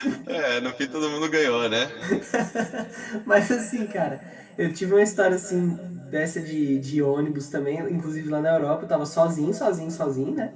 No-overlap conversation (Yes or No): Yes